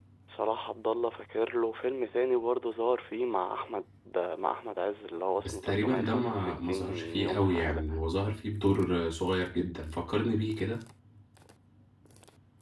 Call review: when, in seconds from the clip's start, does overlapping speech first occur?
5.4 s

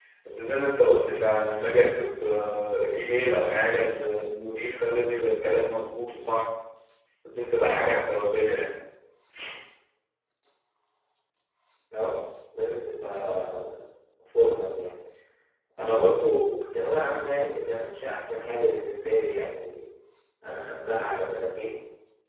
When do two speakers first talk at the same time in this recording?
none

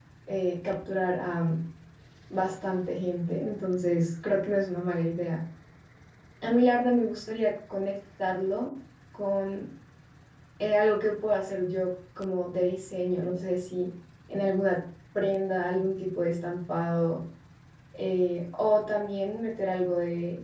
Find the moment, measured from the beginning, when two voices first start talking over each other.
none

